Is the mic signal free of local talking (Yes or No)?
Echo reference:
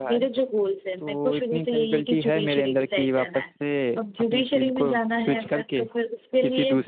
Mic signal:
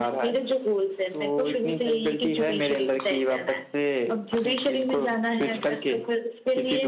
Yes